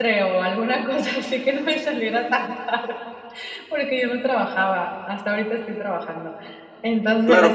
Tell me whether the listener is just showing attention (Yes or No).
No